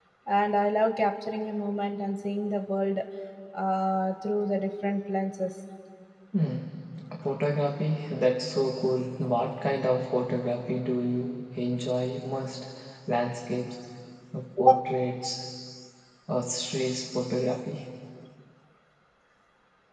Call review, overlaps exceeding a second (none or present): none